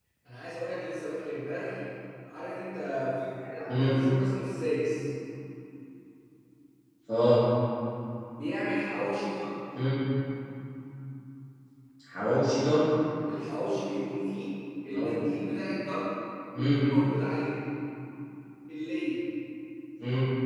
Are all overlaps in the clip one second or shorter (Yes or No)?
Yes